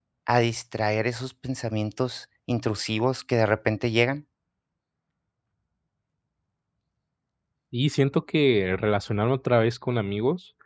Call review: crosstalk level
none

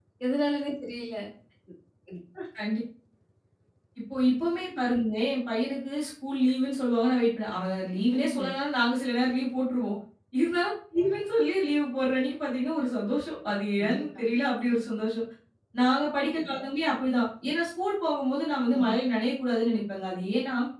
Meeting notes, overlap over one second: none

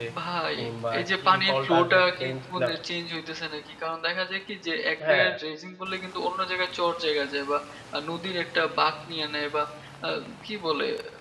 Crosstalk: present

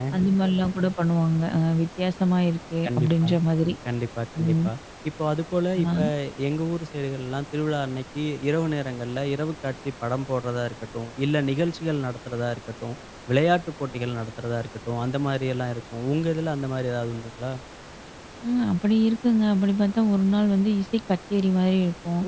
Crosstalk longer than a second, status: none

